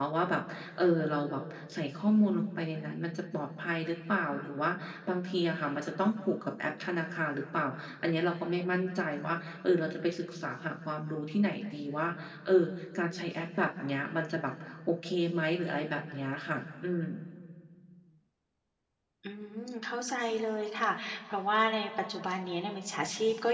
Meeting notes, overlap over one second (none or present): none